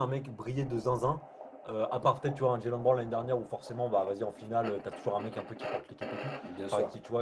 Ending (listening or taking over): listening